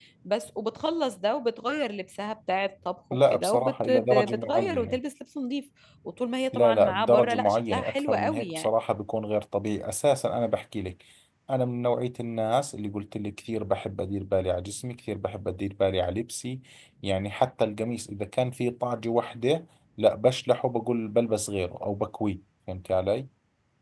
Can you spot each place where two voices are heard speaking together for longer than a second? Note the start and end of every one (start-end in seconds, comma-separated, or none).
3.3-5.0, 6.5-8.7